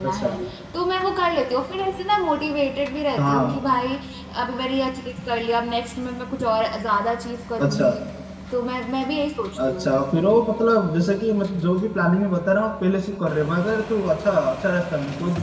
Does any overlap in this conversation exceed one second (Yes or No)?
No